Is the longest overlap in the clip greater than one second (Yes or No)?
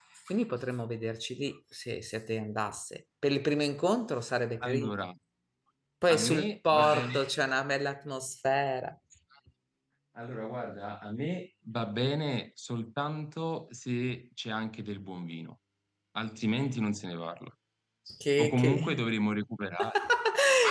Yes